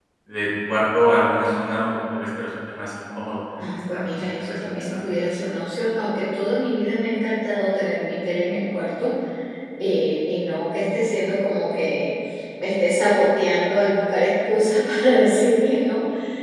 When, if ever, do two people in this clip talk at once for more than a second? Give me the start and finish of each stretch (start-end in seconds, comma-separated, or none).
3.6-5.1